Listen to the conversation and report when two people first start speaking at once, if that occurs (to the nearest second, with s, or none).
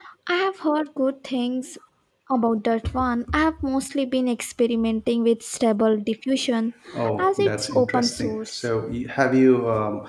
7 s